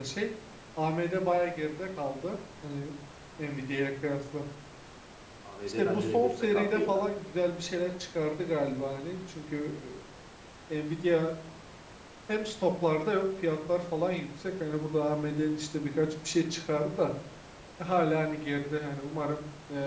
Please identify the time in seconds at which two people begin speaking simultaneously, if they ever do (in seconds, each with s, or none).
5.7 s